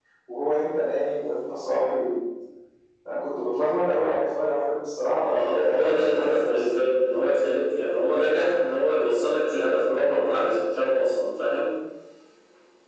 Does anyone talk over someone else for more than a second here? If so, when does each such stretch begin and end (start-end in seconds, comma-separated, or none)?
5.2-6.6